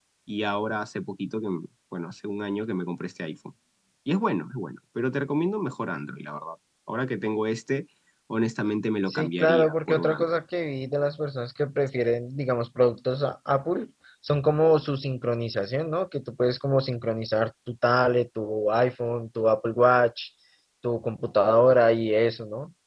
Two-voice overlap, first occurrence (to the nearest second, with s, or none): 9 s